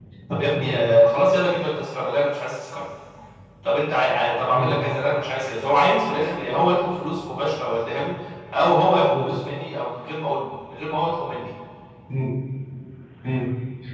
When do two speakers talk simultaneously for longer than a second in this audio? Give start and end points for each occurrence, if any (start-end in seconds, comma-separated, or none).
none